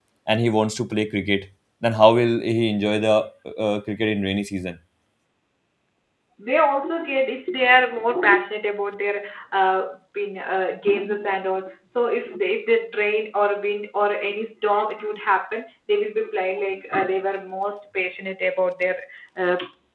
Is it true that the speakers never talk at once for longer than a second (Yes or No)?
Yes